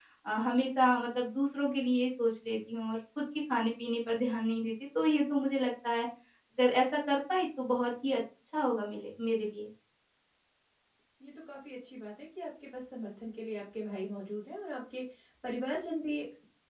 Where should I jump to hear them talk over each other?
none

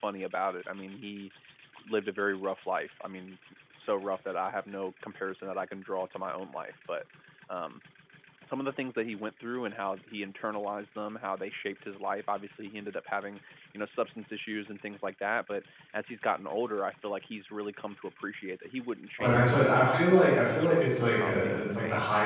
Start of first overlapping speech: 19 s

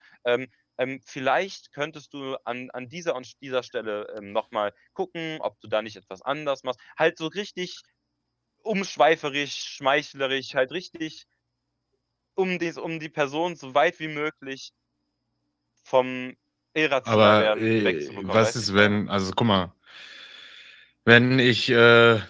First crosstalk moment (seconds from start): 17 s

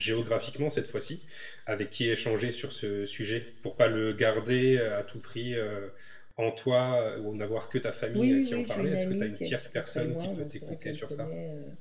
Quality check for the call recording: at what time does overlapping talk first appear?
8 s

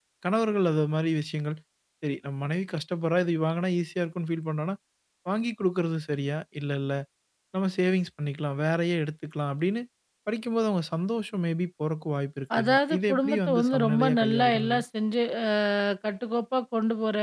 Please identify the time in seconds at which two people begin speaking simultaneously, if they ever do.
13 s

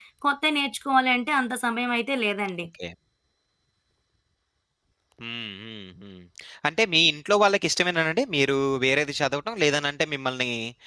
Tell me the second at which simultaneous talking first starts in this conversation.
none

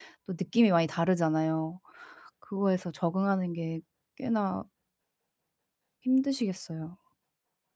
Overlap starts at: none

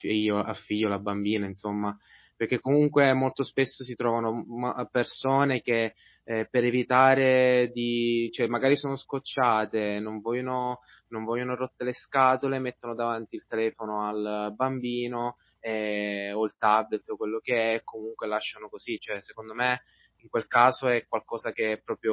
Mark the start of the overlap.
none

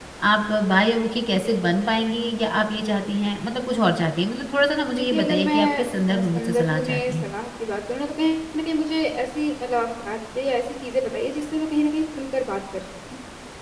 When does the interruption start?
5 s

